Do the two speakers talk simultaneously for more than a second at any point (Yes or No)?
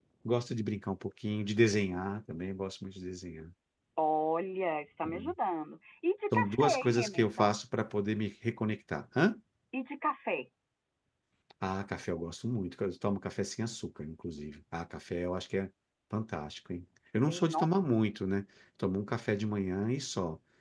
Yes